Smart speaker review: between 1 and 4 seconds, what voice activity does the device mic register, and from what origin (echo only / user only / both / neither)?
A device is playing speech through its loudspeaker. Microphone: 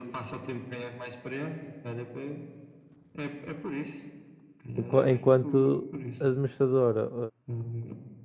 echo only